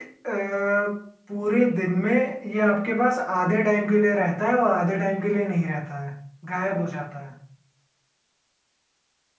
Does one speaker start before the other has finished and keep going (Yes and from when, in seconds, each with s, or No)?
No